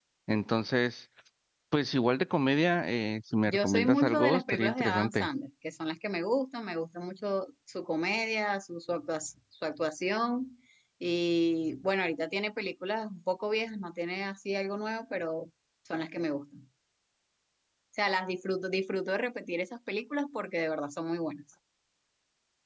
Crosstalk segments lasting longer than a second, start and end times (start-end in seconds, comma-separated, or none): 3.5-5.3